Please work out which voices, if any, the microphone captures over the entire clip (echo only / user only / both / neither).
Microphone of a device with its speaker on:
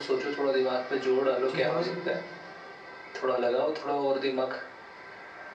both